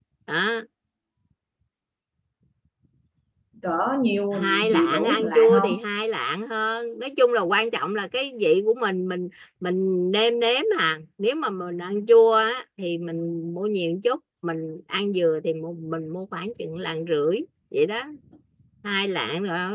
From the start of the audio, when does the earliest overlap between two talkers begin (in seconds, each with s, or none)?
4.3 s